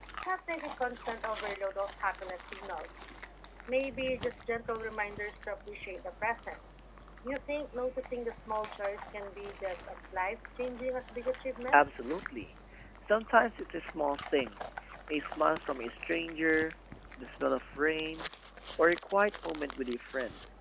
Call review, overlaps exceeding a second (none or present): none